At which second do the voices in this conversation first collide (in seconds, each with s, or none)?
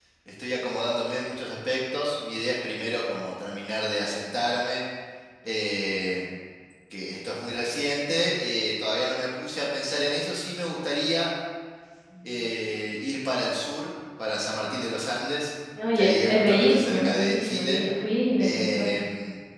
15.9 s